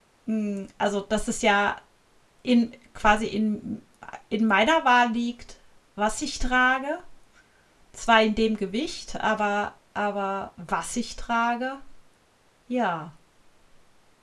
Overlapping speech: No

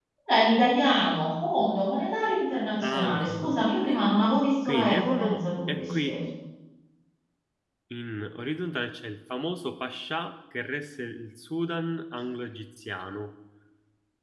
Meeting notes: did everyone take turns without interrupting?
No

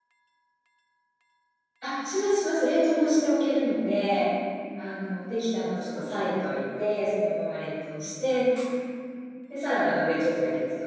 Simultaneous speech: No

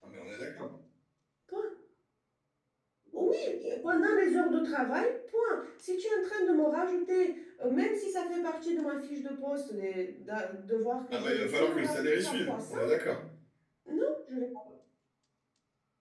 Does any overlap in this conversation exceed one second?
Yes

